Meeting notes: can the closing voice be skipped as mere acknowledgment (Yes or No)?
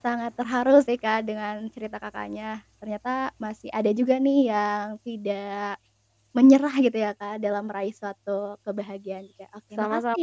No